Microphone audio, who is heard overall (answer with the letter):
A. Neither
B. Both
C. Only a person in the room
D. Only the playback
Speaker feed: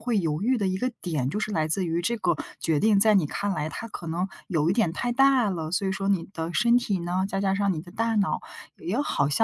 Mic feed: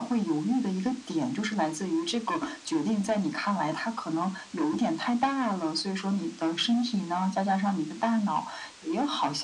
D